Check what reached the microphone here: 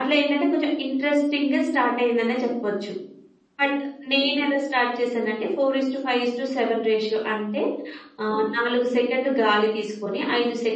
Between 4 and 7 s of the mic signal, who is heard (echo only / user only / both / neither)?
echo only